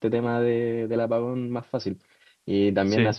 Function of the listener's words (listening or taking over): listening